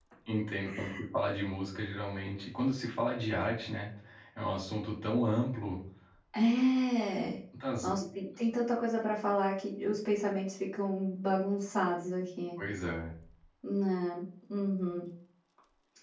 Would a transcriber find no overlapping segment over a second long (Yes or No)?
Yes